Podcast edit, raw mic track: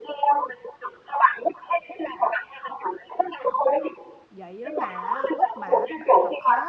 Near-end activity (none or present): present